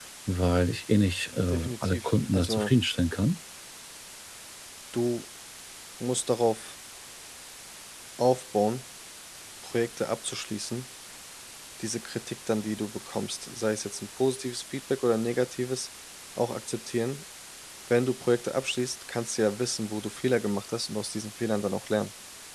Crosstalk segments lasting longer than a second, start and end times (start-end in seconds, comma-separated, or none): 1.5-2.7